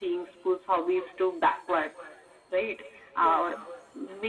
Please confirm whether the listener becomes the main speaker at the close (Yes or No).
No